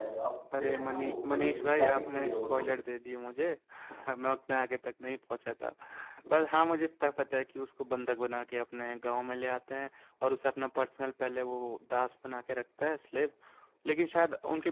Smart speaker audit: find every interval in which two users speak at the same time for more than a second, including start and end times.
0.6-2.6

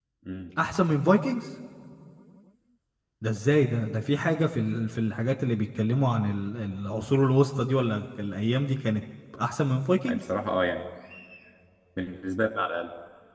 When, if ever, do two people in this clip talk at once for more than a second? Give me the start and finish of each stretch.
none

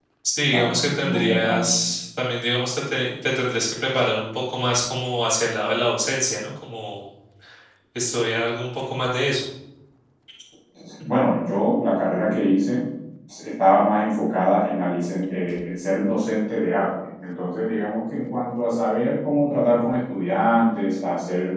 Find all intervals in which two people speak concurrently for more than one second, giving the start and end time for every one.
0.5-1.8

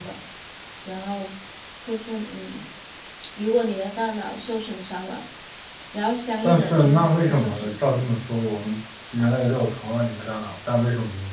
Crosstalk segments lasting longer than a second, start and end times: 6.4-8.1

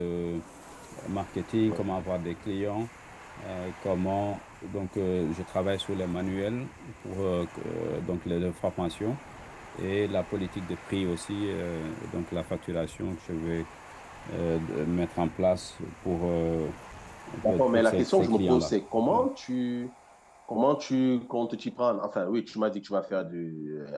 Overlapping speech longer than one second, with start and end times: 17.4-18.7

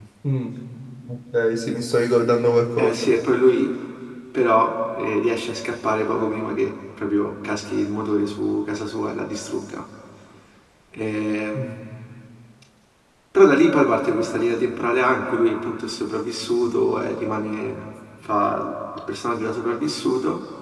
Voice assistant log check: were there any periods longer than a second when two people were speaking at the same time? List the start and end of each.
none

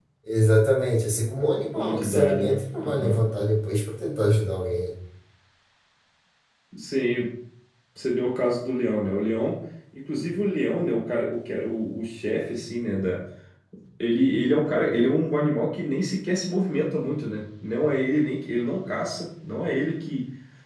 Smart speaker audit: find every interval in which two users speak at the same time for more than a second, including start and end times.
1.7-3.2

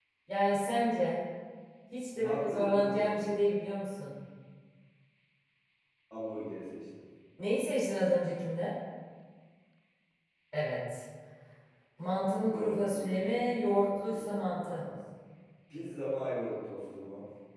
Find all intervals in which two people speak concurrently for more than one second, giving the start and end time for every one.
2.2-3.4, 12.5-14.8

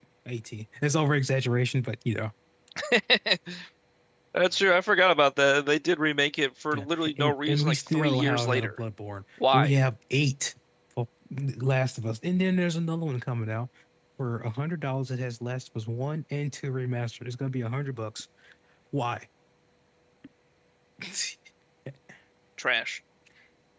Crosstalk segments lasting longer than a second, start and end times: 6.7-8.8

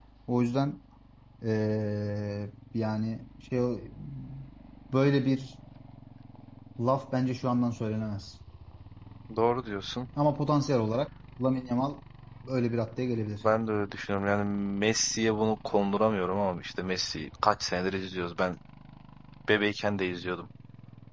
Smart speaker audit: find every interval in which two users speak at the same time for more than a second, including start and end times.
none

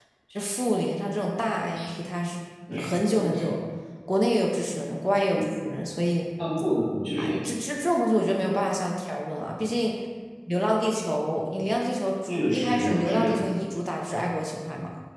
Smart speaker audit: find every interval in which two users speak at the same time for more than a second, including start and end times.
12.3-13.6

